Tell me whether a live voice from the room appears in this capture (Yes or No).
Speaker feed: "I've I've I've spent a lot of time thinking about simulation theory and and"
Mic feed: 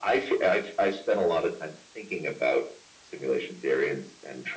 No